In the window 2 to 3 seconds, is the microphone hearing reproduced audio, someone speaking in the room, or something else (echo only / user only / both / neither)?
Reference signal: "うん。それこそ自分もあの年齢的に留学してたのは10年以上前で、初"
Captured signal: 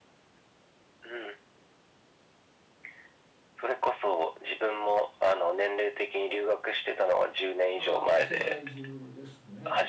neither